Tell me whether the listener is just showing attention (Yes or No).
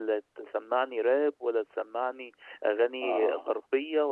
Yes